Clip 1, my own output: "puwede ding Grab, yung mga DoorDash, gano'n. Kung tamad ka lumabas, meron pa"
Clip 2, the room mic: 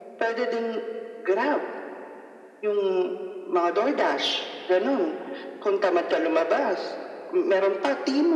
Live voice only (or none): none